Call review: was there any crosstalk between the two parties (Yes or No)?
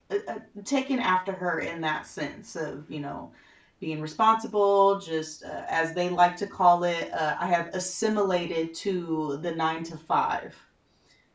No